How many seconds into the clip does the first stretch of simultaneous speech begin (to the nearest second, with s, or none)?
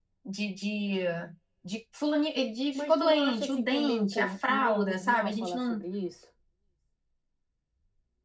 3 s